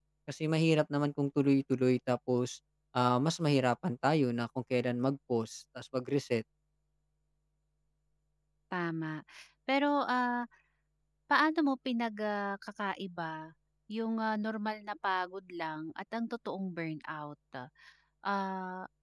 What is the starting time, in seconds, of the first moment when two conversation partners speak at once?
none

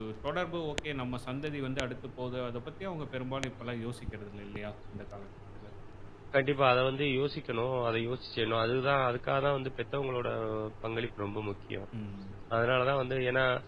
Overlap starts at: none

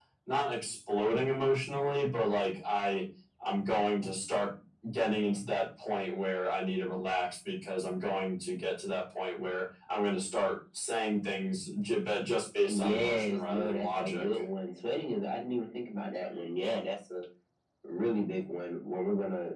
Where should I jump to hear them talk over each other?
12.7 s

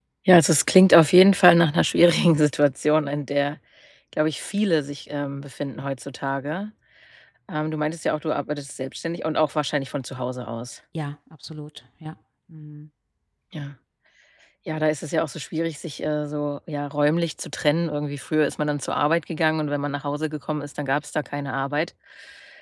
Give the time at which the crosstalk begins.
none

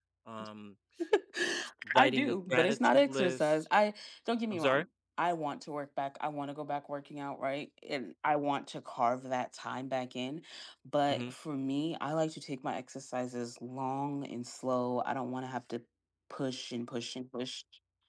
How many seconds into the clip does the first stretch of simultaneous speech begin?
2.0 s

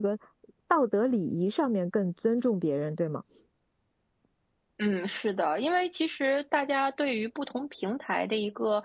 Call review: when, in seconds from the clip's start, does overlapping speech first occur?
none

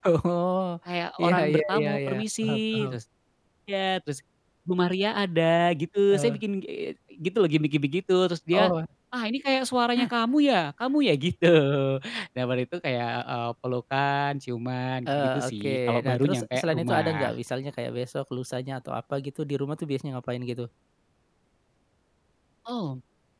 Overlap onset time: 1.2 s

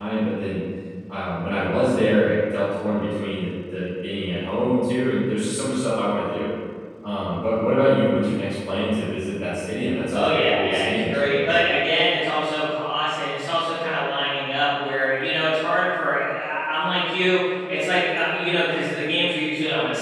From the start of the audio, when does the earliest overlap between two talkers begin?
10.1 s

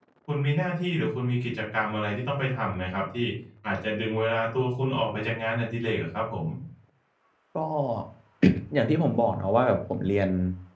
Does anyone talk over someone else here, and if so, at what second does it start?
none

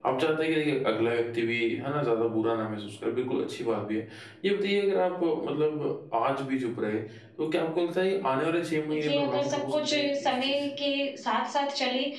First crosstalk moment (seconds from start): 8.9 s

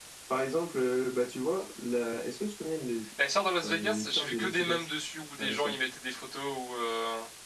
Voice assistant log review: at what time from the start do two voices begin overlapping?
3.6 s

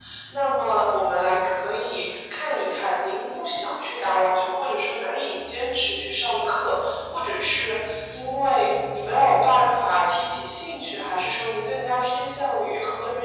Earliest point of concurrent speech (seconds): none

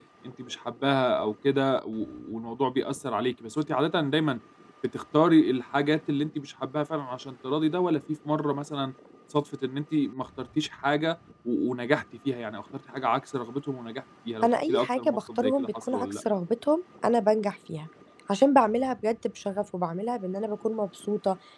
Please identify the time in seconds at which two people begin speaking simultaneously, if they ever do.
14.4 s

